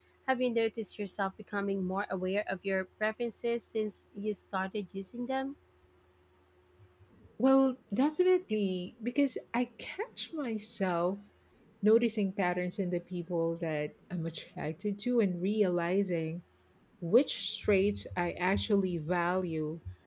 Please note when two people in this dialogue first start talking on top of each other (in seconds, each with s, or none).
none